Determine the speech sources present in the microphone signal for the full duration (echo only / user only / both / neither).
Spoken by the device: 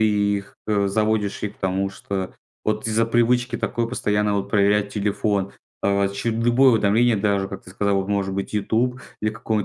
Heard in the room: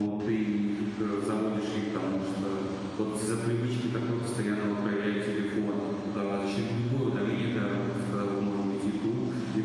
echo only